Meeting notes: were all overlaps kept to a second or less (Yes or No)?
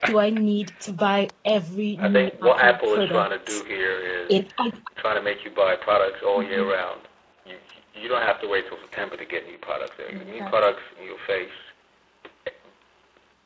No